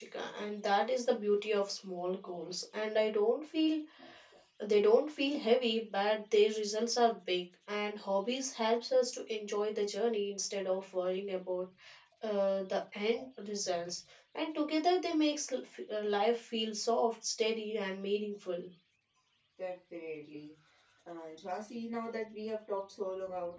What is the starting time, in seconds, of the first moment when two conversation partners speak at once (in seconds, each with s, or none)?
none